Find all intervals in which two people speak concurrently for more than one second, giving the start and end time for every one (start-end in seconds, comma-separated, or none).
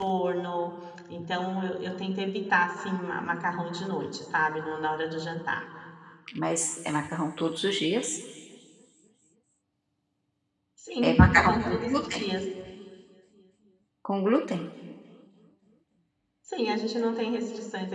11.0-12.2